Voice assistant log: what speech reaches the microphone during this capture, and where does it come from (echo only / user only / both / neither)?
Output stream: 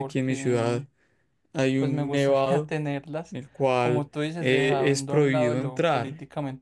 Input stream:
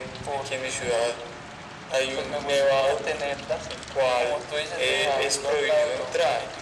echo only